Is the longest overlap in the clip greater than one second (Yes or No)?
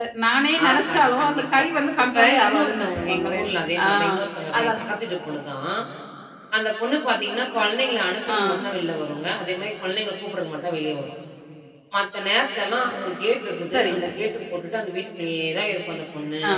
Yes